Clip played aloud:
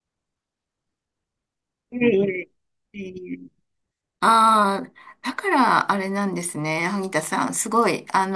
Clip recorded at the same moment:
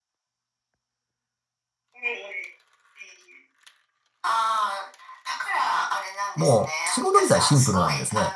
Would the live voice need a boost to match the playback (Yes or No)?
No